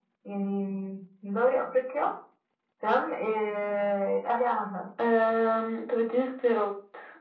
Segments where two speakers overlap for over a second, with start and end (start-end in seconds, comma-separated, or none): none